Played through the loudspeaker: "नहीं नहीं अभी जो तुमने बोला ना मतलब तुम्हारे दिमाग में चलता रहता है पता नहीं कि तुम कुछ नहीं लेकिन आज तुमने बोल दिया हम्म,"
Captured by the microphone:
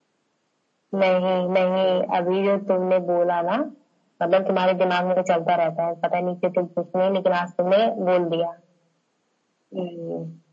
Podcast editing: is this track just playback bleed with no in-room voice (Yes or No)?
Yes